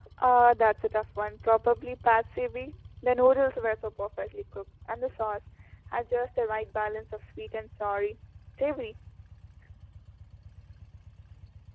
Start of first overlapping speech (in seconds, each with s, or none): none